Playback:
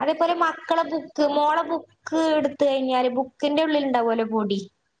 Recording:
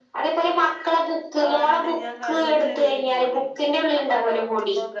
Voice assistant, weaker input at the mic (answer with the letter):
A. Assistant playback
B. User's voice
B